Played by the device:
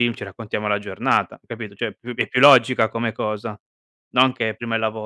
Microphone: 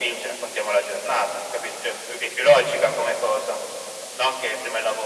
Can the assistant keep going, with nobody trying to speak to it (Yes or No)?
Yes